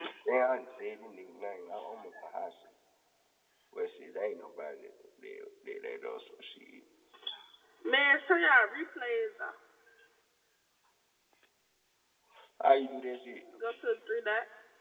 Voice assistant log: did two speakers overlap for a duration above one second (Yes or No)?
No